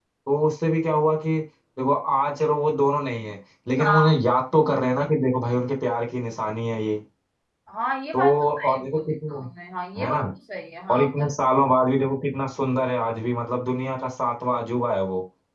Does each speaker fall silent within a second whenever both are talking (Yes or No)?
No